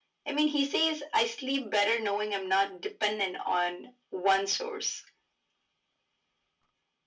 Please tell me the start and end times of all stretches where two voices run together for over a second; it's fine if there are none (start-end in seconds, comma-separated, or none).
none